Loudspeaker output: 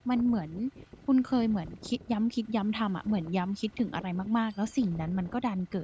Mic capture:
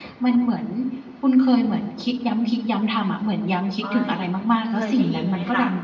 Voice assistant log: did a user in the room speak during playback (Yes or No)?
Yes